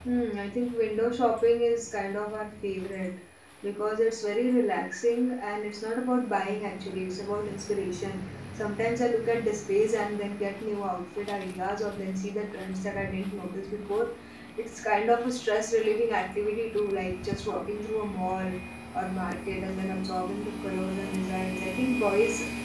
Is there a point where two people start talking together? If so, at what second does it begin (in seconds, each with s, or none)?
none